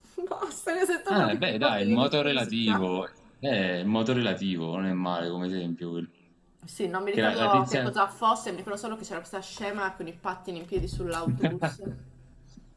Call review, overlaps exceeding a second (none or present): present